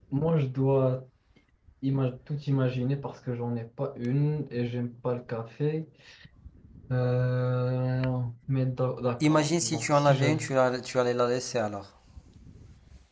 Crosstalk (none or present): present